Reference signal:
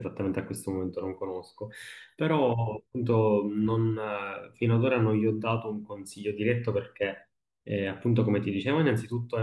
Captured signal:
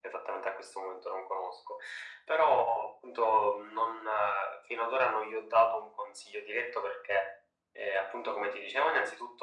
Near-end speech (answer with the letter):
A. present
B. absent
B